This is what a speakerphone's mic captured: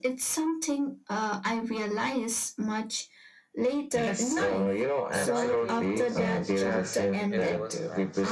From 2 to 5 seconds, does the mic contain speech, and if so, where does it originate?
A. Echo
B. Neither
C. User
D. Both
A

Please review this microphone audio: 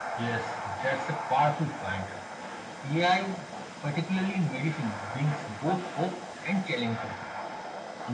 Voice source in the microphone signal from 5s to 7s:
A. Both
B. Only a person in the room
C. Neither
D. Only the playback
D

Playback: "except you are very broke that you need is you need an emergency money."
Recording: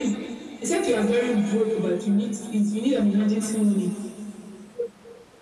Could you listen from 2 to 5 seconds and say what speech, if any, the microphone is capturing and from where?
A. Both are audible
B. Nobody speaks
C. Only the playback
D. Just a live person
C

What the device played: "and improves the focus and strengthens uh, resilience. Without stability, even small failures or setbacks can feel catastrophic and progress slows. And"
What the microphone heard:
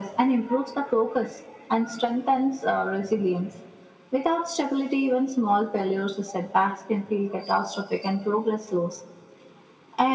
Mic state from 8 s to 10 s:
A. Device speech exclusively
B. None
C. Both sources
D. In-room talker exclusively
A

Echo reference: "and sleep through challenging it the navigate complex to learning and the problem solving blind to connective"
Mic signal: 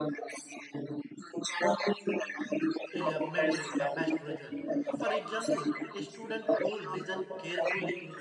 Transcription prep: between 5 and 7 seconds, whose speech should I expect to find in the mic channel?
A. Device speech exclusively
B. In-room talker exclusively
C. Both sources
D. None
C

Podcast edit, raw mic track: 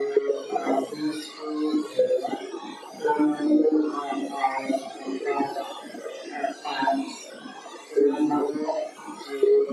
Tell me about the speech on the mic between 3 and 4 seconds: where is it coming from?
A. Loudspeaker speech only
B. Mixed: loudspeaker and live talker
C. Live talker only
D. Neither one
A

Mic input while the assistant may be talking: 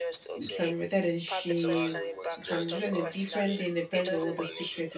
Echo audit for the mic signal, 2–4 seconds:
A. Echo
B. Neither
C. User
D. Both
D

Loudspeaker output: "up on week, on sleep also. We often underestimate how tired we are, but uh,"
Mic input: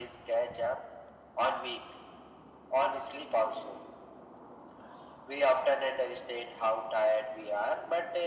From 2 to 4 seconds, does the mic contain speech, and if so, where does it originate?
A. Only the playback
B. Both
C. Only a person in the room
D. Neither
A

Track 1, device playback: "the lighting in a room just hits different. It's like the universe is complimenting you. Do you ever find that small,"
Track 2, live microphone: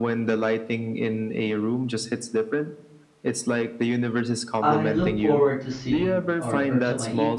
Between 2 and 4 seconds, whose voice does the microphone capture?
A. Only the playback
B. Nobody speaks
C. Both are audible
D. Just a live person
A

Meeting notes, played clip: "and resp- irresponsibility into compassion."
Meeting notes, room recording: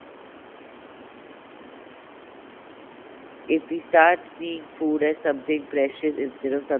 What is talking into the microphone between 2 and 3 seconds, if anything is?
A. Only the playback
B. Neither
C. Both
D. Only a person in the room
B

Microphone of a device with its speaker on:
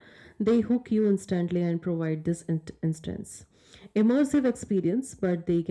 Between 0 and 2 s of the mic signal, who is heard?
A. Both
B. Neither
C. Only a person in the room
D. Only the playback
C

